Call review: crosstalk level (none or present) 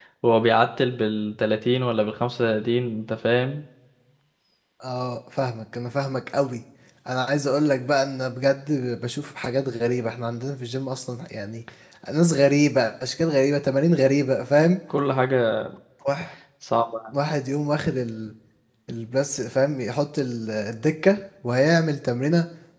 none